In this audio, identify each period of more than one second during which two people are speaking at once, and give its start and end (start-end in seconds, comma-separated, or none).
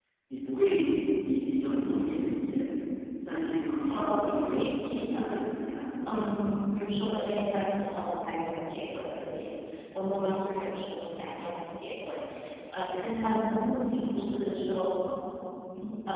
3.9-5.3